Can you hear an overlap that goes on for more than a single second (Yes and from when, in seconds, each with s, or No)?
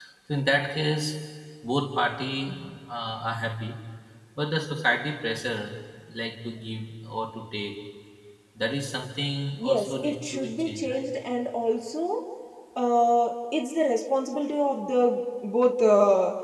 Yes, from 9.6 s